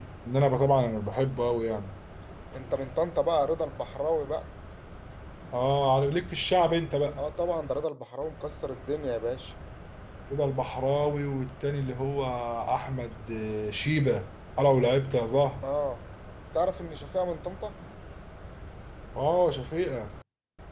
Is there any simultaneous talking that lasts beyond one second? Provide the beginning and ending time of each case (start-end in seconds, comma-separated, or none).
none